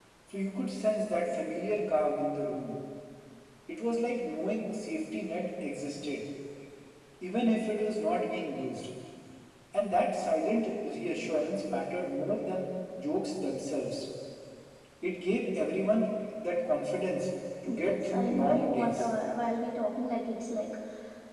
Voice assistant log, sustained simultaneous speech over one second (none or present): present